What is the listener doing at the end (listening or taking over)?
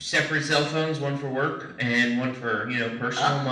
taking over